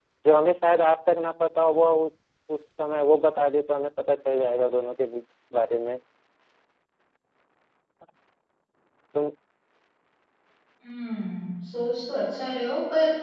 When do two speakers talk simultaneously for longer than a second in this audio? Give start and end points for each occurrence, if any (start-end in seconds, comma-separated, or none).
none